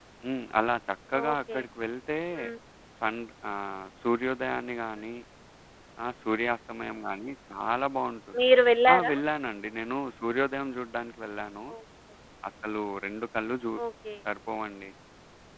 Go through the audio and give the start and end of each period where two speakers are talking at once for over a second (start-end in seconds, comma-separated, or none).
none